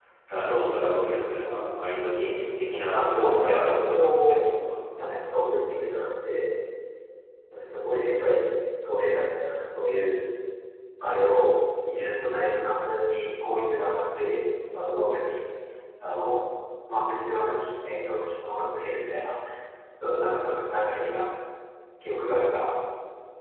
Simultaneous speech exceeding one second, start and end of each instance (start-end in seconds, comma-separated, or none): 2.9-4.4